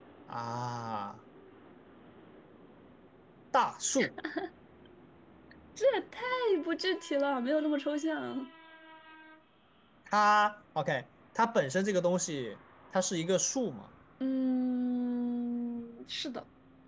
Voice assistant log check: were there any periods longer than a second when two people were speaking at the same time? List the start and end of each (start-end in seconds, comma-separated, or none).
none